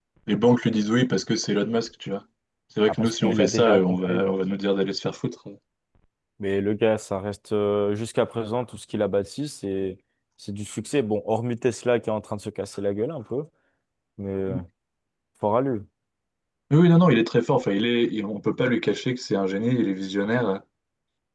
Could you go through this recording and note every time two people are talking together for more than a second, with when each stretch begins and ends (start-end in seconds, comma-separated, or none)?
2.8-4.2